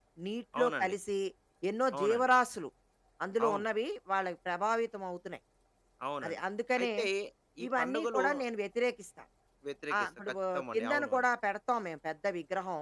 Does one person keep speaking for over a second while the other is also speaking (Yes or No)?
Yes